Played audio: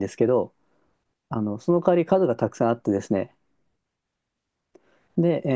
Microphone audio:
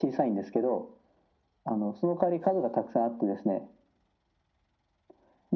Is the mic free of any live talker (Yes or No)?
Yes